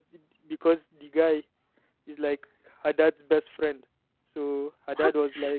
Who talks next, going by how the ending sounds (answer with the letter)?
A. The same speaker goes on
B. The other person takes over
A